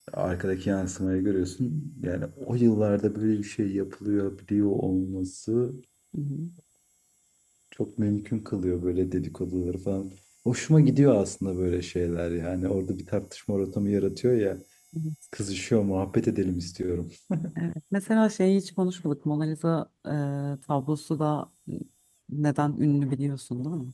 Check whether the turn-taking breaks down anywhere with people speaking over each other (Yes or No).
No